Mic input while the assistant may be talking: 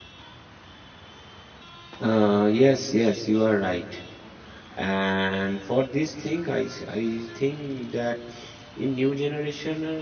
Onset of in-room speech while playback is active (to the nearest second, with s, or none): 2 s